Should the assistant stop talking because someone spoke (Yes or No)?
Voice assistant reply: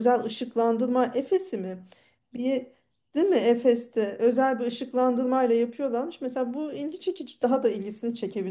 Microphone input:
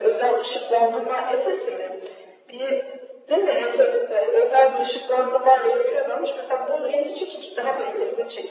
No